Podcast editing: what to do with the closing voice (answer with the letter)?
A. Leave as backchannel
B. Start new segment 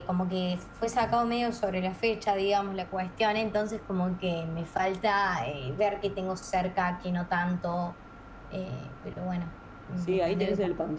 B